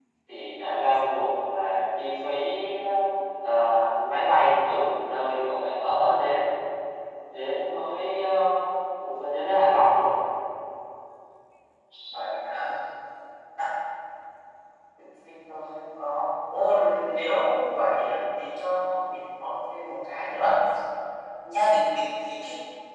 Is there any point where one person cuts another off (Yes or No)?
No